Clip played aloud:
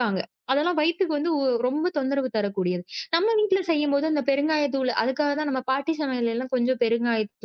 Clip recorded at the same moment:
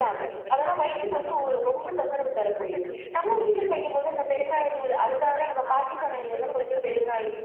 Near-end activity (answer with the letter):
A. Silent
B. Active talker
B